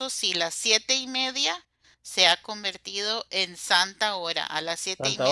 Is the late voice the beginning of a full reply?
No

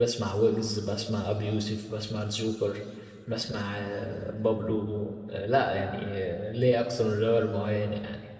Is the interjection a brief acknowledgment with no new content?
No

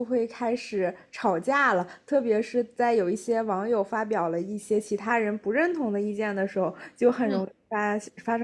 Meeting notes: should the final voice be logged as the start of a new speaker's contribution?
No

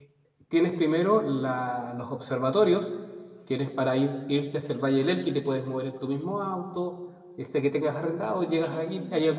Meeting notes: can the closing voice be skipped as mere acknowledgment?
Yes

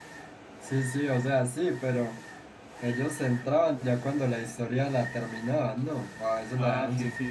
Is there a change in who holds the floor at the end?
Yes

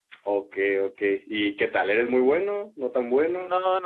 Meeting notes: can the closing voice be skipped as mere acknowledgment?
No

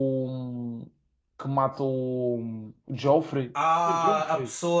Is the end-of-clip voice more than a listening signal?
Yes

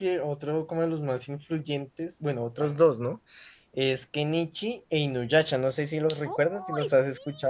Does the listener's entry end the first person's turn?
Yes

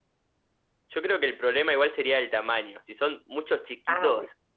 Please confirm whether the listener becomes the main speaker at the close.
No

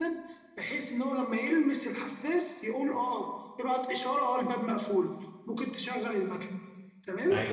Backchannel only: No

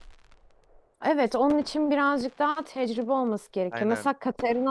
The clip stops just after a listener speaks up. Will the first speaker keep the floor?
Yes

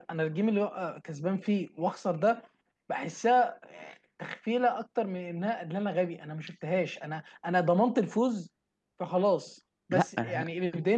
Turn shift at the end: No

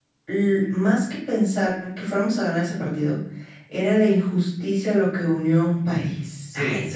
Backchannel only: No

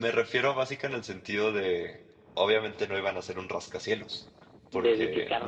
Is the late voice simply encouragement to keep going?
Yes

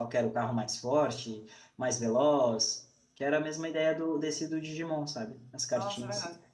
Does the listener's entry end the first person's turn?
Yes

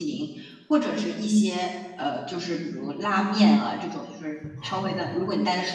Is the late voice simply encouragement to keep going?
Yes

